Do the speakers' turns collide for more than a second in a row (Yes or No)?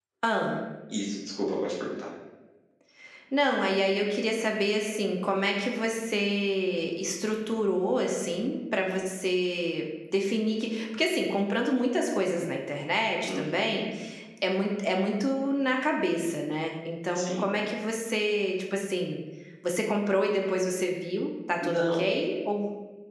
No